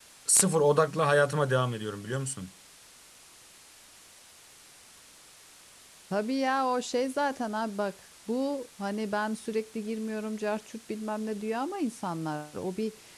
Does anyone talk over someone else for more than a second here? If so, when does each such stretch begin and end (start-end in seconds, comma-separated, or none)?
none